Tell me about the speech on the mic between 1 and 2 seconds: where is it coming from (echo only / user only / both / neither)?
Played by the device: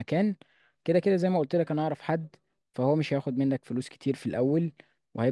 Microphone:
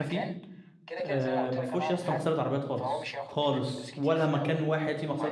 both